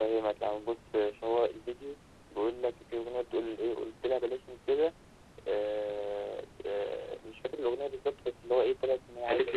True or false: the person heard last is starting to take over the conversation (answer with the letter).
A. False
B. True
B